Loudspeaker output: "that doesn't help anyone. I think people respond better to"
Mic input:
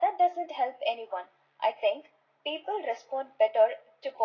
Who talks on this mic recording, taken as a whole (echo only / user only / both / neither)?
echo only